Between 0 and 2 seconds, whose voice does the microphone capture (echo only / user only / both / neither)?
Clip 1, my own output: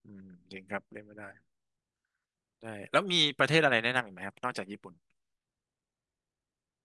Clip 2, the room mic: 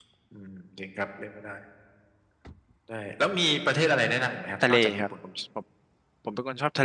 echo only